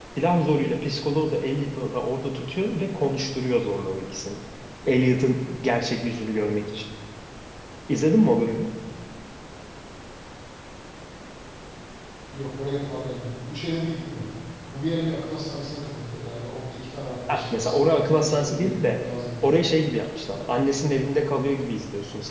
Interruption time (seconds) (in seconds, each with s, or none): 17.3 s